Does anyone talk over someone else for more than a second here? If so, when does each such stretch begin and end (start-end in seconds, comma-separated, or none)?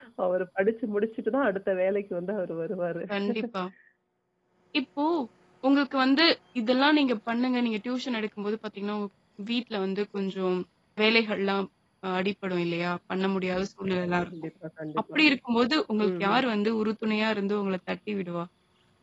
none